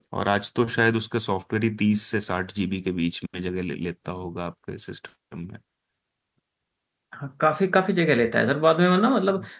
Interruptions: none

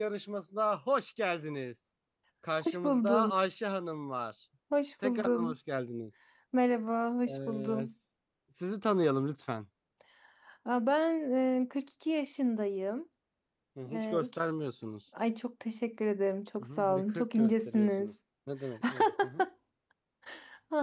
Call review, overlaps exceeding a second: present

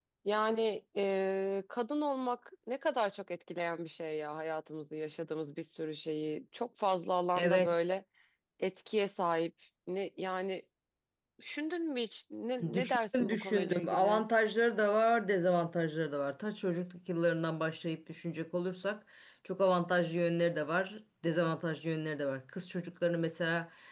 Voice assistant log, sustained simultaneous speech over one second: present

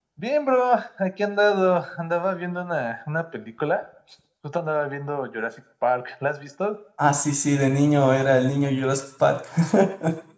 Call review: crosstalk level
none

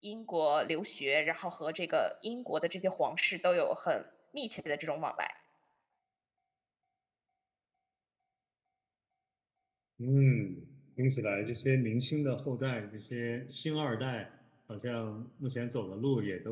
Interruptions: none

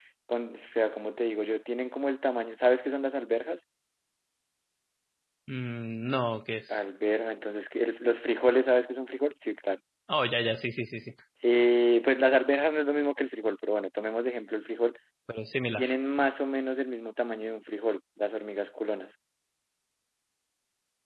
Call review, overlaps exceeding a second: none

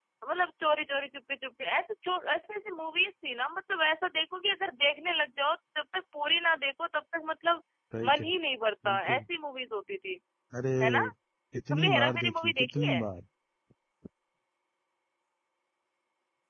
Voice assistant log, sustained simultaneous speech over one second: present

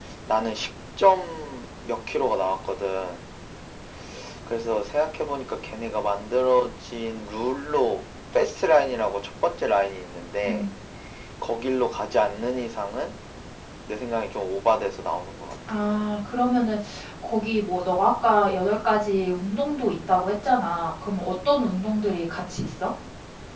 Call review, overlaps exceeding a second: none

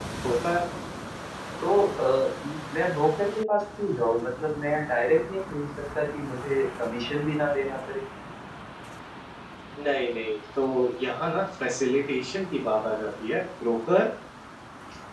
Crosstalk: none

